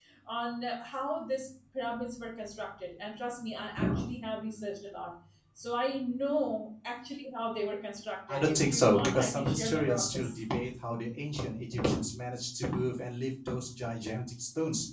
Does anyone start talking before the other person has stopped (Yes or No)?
Yes